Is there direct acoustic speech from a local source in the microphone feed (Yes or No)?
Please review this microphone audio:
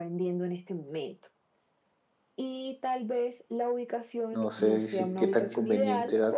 Yes